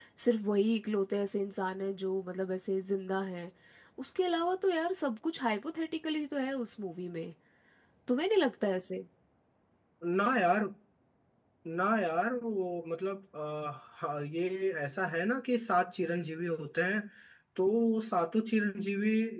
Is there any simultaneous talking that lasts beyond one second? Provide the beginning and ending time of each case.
none

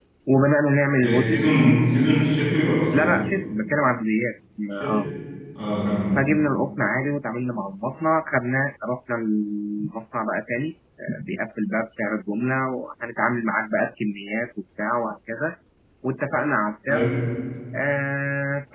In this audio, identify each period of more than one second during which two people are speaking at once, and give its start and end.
none

